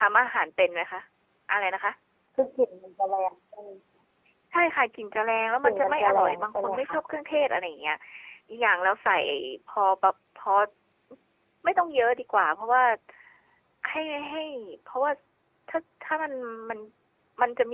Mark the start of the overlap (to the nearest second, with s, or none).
6 s